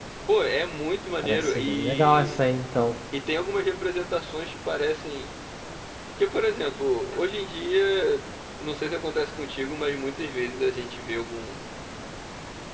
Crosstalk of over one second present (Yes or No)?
Yes